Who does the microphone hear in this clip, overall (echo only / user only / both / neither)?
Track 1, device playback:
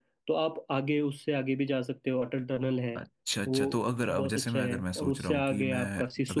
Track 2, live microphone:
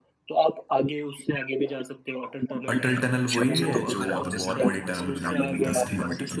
both